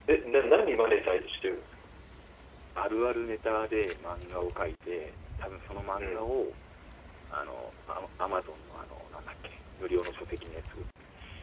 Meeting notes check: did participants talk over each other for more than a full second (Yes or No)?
No